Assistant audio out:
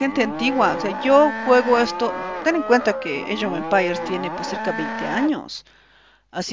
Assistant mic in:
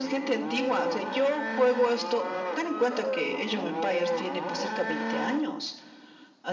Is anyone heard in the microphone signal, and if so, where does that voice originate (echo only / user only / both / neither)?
echo only